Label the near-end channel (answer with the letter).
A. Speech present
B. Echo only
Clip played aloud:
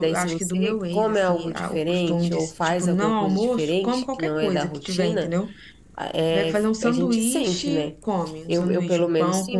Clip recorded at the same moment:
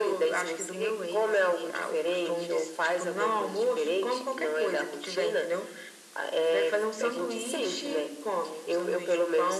B